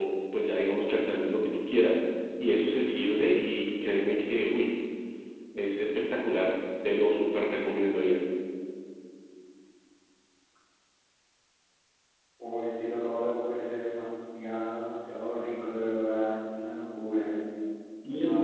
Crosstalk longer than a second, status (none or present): none